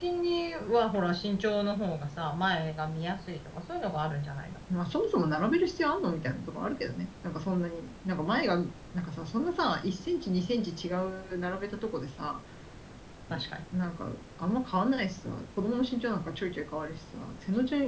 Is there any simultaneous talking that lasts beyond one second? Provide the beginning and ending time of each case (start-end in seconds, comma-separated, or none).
none